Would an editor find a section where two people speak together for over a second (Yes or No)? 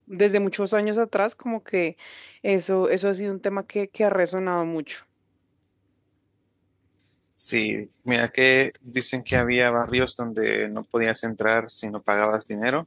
No